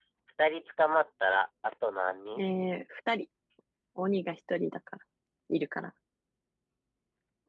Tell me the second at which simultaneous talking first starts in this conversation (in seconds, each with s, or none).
none